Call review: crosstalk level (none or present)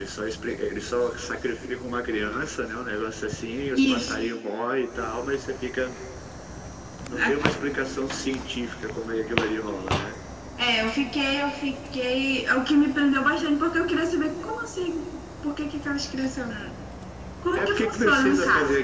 present